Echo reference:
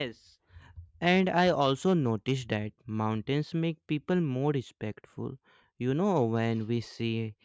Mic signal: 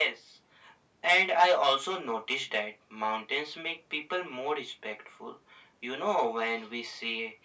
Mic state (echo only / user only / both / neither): echo only